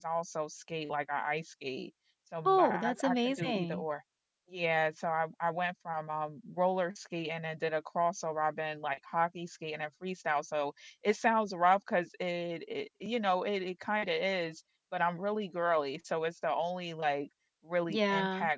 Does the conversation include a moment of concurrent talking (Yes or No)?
Yes